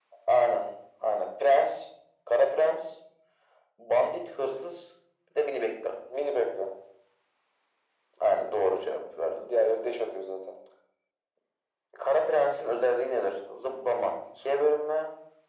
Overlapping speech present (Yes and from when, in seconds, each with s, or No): No